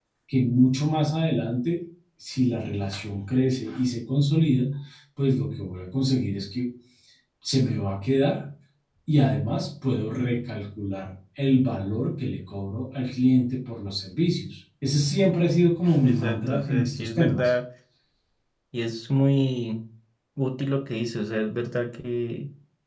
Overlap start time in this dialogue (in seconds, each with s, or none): 16.0 s